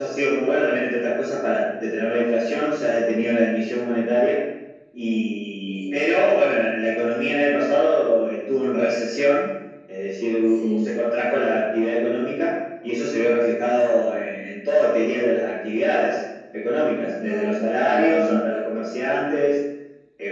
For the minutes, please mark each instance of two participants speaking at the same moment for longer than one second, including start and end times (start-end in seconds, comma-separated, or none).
17.2-18.4